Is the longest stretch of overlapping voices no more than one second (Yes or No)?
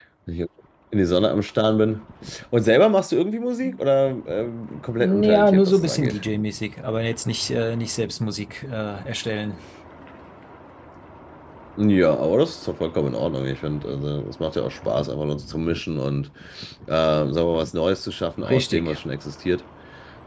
No